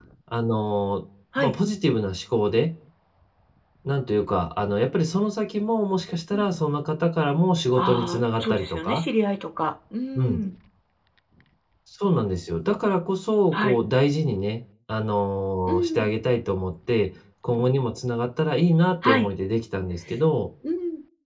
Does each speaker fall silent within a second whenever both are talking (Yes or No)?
No